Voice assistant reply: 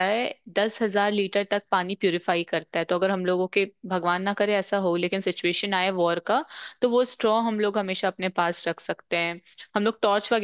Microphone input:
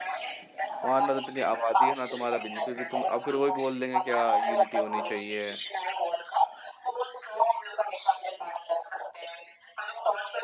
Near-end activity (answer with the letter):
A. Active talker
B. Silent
A